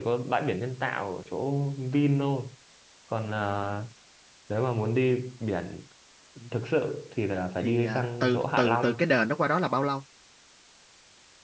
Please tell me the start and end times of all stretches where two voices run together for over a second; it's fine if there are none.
7.6-9.0

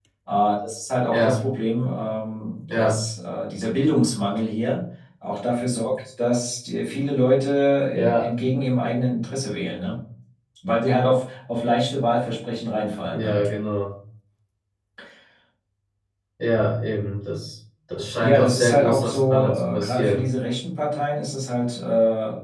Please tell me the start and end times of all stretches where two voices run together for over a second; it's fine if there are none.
18.2-20.3

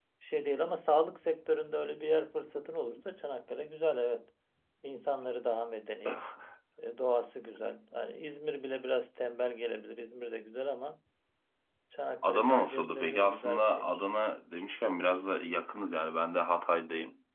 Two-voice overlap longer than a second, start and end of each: 12.2-14.0

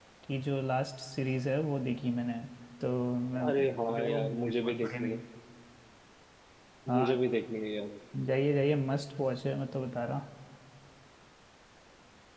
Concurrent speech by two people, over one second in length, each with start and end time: 3.5-5.2

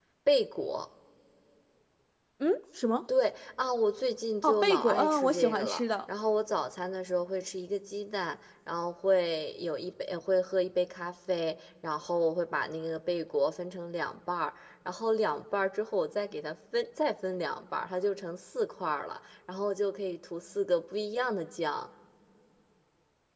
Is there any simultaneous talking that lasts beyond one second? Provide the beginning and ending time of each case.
4.4-5.8

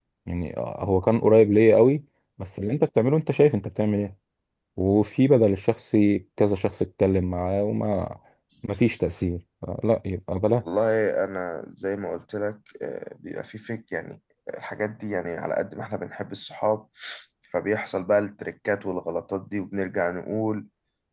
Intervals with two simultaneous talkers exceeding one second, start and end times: none

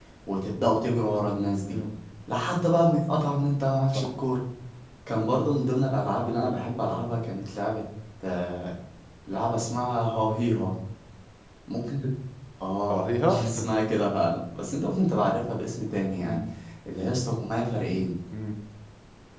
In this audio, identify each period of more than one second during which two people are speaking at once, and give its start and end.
none

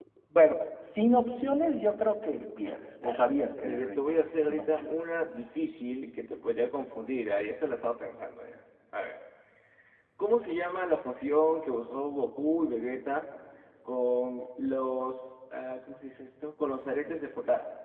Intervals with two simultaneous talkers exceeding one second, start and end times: 3.0-5.0

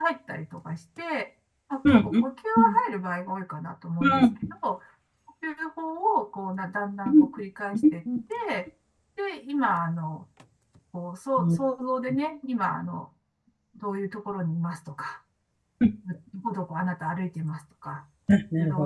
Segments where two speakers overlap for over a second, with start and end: none

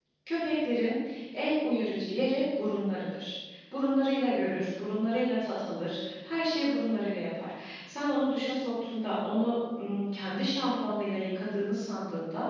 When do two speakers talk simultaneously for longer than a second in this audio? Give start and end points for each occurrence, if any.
none

